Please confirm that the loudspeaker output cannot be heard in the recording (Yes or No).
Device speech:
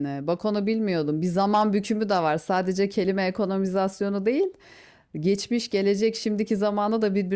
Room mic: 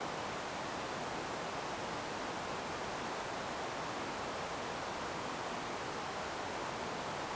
Yes